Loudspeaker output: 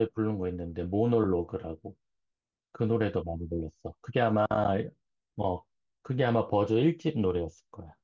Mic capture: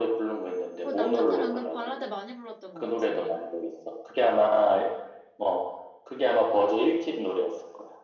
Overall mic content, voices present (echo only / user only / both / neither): both